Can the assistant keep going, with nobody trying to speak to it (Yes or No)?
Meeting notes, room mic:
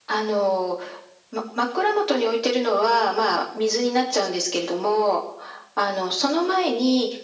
Yes